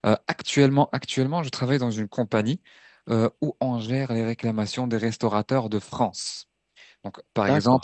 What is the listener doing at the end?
listening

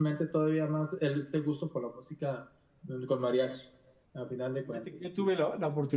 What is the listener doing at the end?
taking over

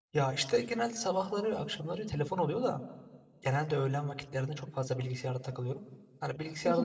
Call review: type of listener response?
listening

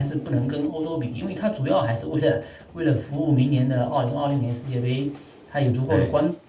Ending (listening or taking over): listening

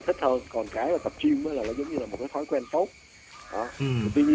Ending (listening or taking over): listening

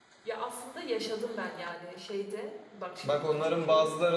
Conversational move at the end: taking over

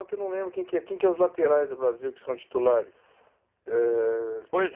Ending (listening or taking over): taking over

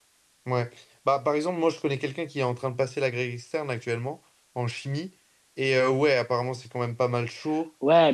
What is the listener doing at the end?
taking over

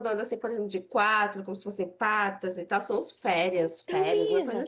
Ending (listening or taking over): taking over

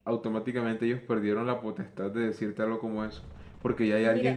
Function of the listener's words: listening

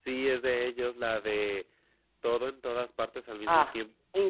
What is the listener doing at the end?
taking over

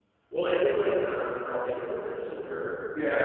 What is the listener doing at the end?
taking over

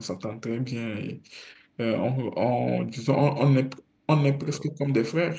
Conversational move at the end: listening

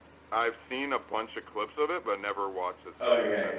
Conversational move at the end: taking over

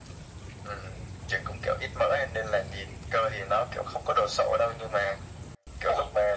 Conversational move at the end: taking over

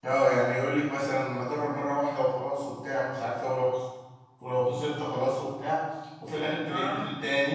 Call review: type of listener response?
listening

